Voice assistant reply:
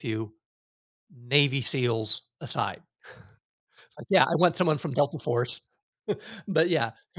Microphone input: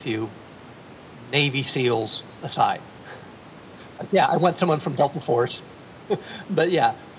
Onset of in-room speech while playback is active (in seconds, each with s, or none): none